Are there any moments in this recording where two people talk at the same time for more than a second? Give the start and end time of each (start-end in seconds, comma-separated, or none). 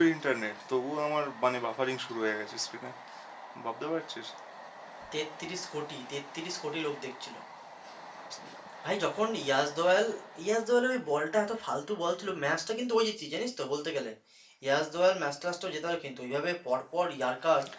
none